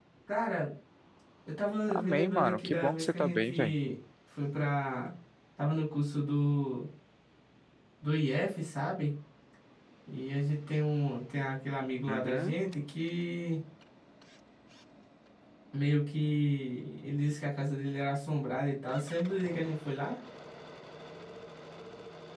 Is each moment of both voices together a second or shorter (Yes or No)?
No